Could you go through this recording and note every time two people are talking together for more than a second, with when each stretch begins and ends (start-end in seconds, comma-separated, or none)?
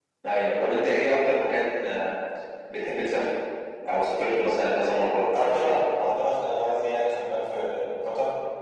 none